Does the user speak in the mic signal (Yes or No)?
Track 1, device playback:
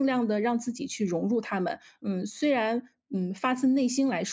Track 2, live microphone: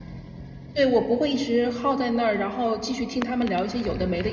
Yes